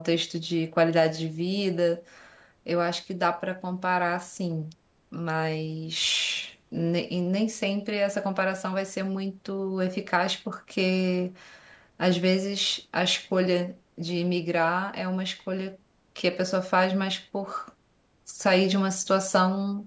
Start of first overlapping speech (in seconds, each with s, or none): none